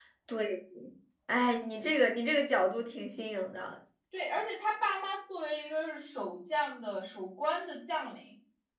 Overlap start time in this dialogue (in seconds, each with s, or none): none